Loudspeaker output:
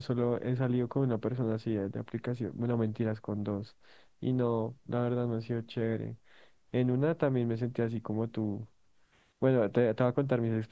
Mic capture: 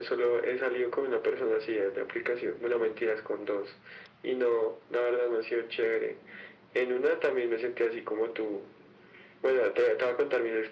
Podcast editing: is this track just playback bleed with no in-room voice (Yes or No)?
Yes